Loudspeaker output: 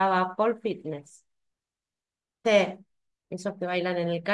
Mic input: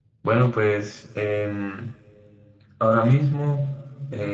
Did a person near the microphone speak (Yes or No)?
Yes